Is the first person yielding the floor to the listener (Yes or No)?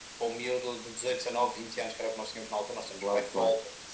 No